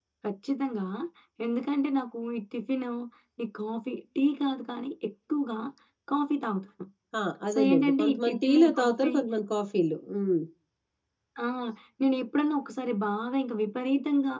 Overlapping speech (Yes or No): Yes